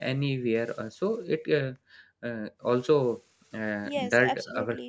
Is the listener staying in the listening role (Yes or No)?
No